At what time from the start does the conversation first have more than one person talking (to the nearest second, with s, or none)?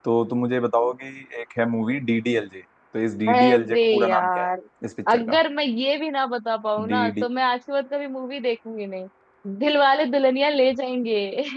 3 s